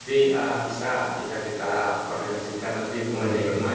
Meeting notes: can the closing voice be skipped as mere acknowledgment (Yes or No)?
Yes